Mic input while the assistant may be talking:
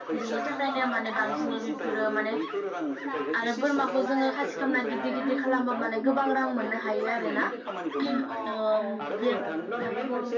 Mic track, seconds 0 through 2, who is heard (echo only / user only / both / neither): both